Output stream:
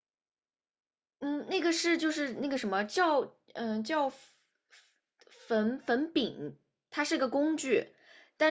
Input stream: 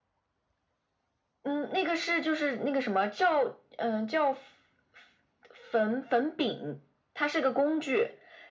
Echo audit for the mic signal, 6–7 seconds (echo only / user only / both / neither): echo only